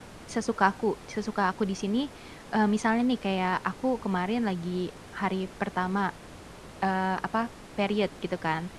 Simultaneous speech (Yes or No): No